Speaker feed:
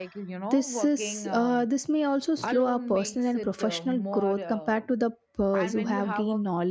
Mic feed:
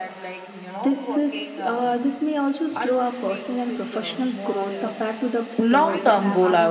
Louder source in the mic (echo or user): user